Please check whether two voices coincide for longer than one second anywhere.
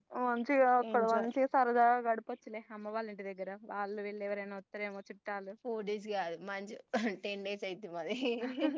No

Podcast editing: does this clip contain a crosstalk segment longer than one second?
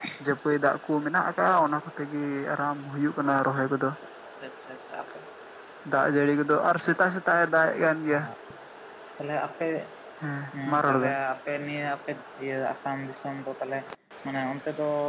No

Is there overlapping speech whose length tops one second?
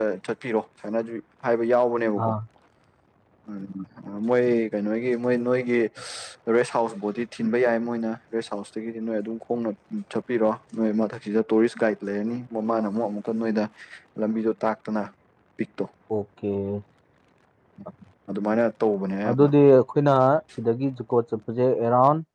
No

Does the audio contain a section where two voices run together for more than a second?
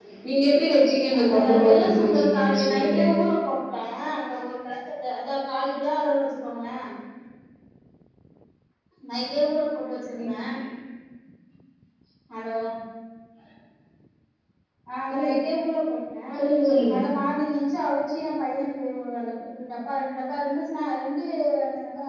Yes, from 1.2 s

